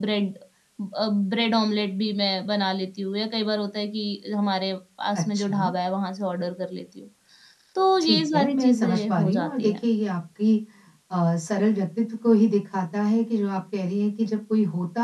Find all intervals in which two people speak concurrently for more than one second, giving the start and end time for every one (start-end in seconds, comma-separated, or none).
8.0-9.8